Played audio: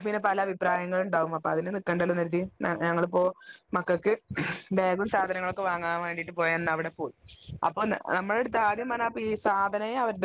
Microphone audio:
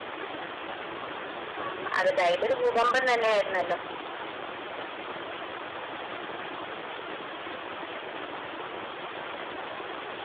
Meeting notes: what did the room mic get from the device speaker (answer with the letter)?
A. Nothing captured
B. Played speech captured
A